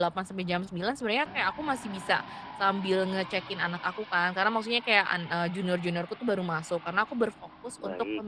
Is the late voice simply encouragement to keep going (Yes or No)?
Yes